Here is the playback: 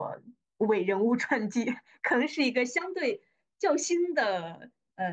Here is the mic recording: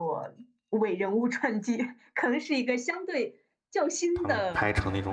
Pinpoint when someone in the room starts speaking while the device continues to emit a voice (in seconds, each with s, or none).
4.1 s